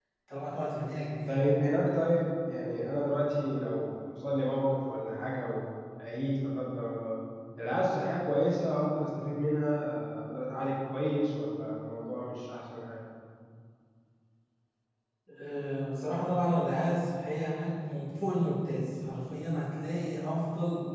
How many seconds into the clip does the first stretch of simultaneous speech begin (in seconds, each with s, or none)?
none